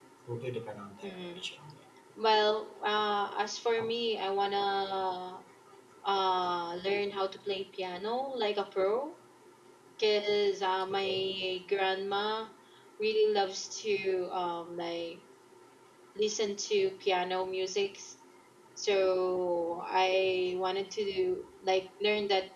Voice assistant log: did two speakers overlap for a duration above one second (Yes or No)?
No